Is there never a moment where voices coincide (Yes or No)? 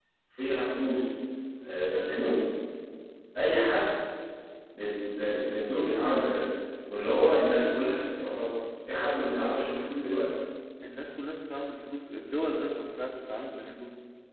Yes